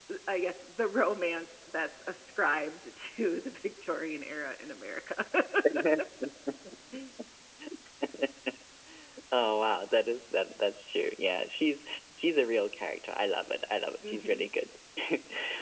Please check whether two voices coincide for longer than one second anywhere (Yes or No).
No